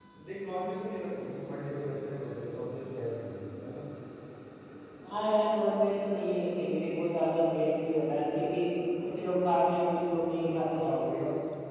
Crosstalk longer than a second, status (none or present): none